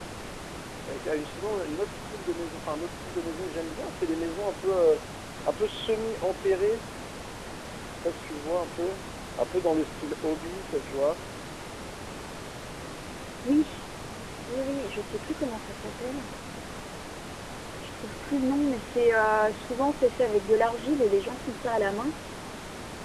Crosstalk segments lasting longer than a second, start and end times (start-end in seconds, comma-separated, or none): none